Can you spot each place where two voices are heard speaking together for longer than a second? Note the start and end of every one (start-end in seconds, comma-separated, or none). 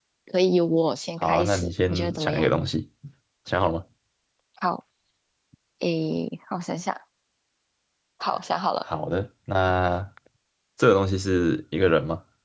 1.2-2.5